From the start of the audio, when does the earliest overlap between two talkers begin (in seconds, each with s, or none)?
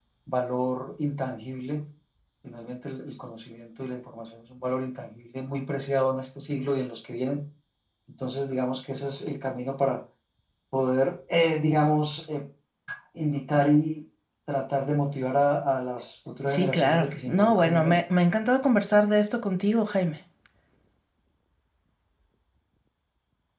16.5 s